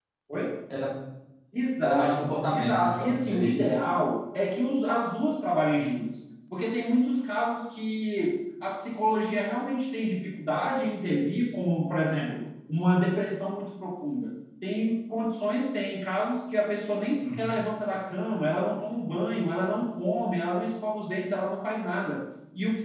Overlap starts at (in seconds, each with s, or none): 1.8 s